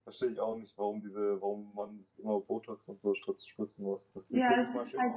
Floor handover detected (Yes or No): Yes